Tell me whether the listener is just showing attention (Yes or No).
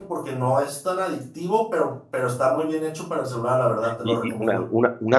No